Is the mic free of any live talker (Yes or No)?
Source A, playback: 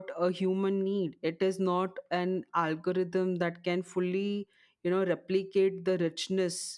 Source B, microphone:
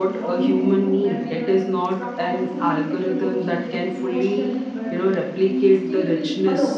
No